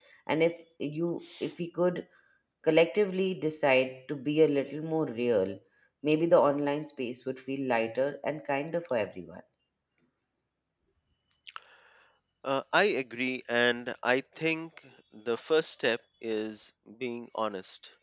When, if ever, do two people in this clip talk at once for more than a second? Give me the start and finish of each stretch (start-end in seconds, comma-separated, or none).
none